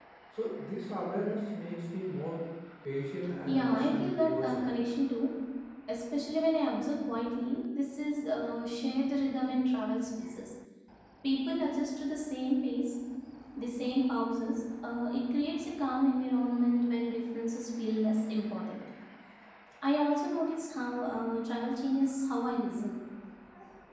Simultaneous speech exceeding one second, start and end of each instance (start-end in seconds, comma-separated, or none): 3.5-4.8